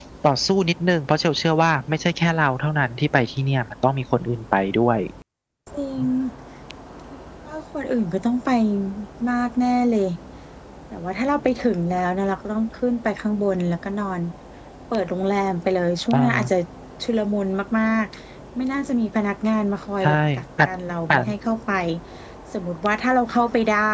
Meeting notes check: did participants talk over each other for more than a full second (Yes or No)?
No